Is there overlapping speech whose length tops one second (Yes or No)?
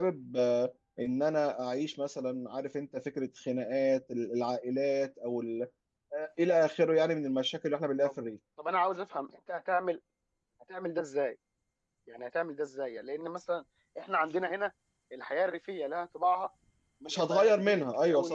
Yes